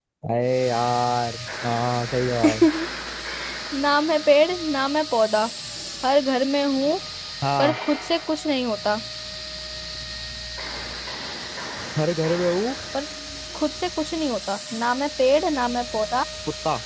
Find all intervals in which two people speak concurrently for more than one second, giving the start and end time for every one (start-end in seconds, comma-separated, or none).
none